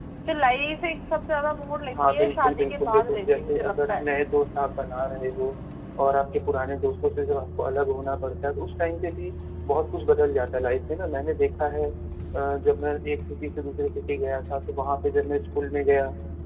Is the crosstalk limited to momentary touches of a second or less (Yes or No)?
No